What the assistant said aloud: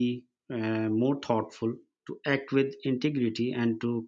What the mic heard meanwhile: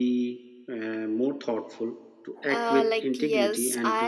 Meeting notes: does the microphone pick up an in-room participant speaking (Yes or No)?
Yes